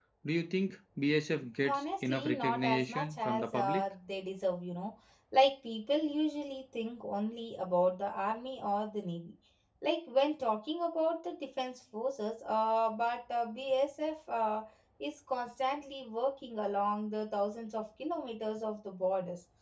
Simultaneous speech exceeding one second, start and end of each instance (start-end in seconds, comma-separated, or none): 1.6-3.8